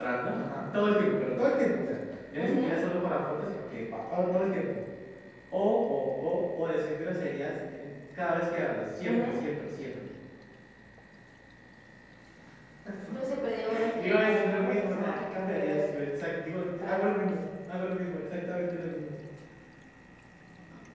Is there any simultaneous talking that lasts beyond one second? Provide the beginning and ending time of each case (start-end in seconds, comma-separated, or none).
13.9-15.8